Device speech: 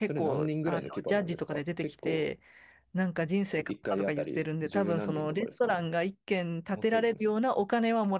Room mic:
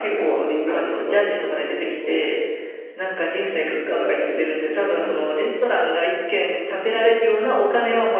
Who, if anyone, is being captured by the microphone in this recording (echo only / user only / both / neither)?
echo only